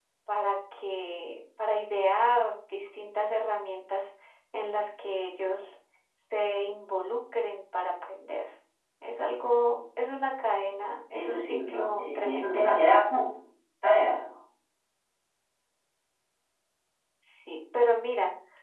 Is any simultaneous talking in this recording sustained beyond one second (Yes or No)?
Yes